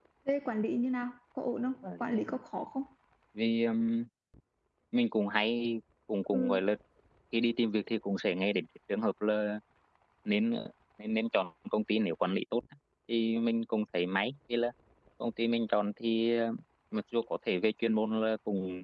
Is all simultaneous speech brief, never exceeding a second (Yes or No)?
Yes